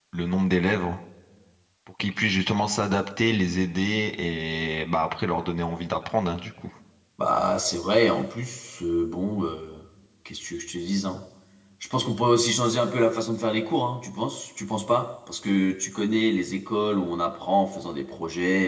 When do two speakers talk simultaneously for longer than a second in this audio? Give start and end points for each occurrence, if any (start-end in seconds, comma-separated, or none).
none